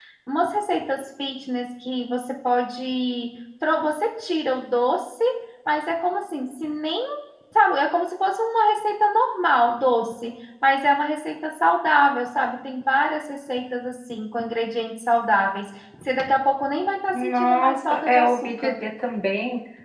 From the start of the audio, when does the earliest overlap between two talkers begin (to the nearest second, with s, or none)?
17 s